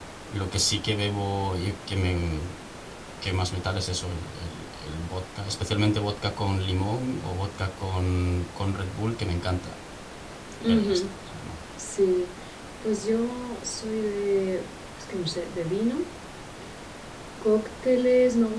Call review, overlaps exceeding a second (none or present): none